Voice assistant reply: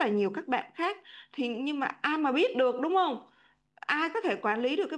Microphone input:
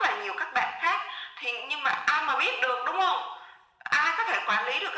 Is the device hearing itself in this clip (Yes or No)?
Yes